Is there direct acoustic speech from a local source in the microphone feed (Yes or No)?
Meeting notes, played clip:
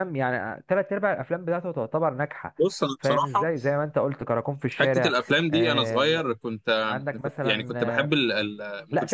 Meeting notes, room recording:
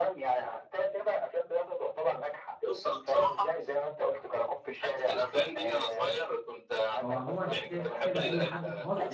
Yes